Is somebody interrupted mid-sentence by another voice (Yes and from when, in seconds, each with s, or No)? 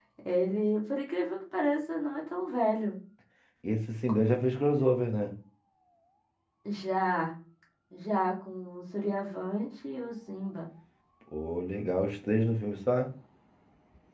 No